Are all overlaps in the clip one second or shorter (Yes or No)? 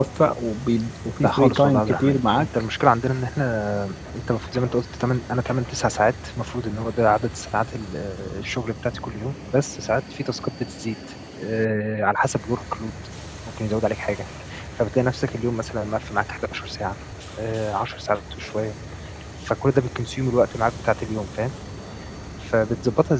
No